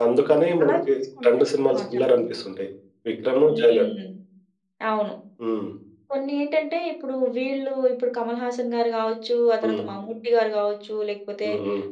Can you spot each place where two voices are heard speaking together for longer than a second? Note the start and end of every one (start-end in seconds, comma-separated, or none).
none